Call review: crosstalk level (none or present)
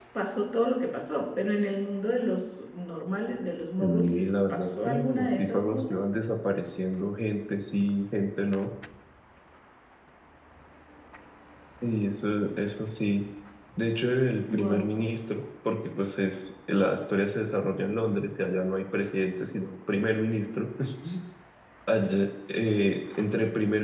present